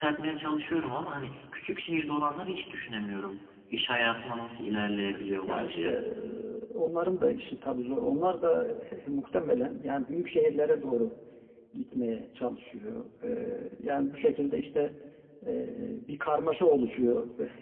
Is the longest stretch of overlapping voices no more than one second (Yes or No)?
Yes